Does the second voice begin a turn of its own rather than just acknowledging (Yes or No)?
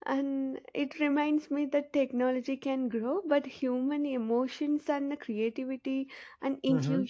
No